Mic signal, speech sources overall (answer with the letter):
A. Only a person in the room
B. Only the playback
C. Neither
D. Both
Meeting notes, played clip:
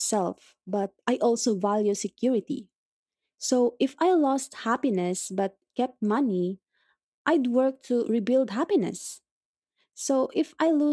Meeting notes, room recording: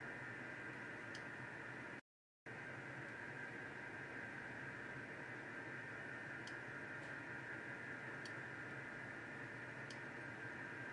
C